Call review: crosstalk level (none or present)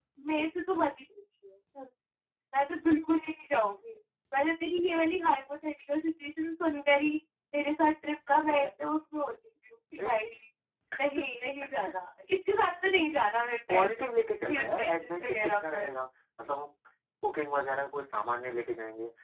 present